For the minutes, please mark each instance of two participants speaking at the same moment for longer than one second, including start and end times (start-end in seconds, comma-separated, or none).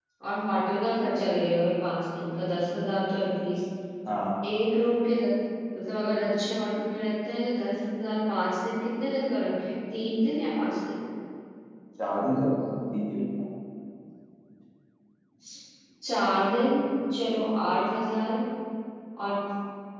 none